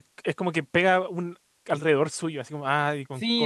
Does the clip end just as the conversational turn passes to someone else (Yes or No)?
Yes